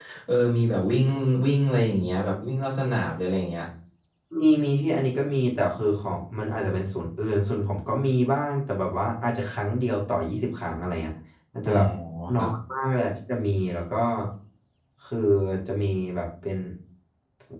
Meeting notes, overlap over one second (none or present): none